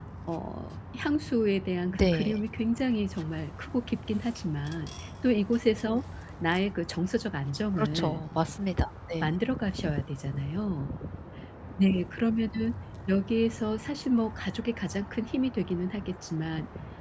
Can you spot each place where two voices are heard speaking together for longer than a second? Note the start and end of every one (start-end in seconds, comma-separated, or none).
none